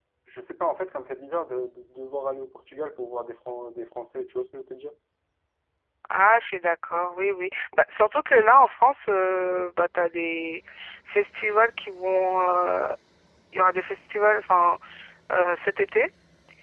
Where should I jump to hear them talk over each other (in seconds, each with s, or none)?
none